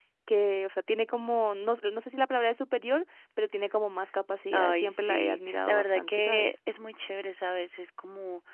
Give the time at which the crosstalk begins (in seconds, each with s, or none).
4.5 s